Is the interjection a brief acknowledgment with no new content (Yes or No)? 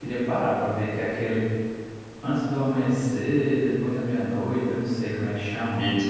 No